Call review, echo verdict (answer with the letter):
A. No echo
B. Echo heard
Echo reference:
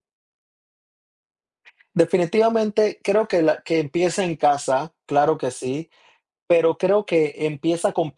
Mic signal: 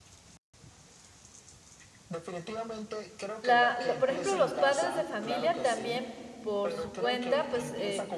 B